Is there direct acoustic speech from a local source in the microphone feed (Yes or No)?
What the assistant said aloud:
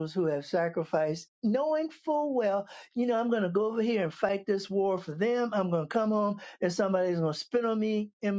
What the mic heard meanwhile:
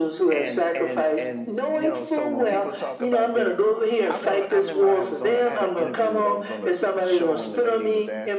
Yes